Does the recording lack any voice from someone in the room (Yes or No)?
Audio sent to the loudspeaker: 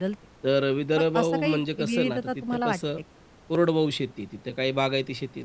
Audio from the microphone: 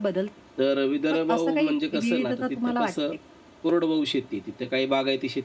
Yes